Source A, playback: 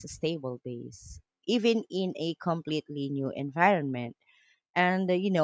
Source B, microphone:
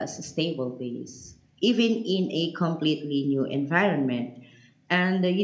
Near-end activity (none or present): none